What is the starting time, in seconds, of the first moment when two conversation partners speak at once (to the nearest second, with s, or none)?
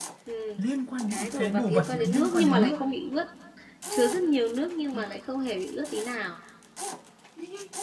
1 s